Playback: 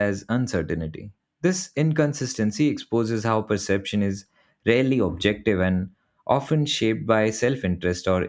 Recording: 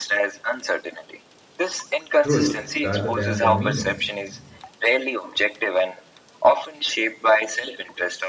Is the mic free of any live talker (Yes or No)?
No